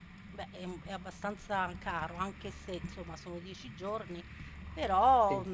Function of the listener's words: listening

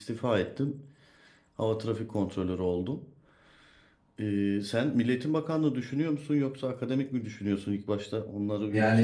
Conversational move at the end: taking over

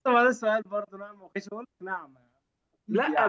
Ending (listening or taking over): taking over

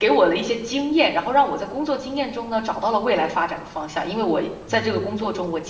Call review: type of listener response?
listening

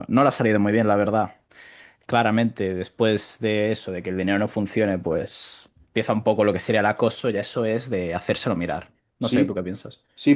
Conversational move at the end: taking over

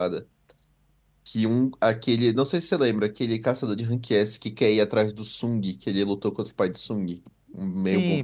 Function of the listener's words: taking over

